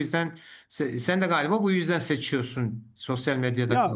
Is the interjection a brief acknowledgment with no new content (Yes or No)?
No